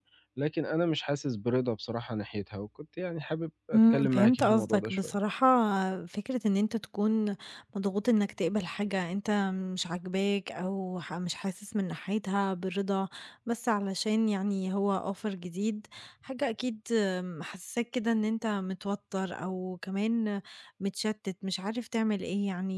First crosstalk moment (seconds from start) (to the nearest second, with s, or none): 4 s